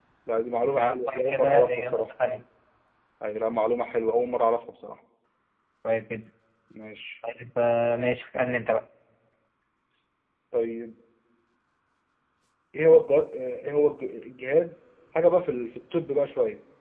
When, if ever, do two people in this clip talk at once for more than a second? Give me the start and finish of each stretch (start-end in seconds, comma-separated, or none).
0.8-2.1